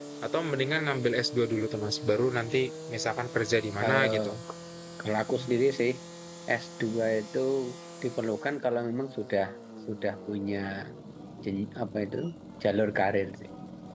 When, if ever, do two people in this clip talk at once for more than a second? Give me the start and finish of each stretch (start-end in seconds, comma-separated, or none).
none